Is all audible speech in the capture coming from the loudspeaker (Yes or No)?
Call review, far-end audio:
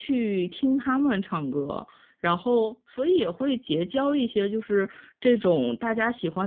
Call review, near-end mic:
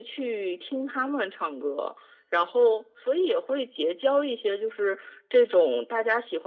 Yes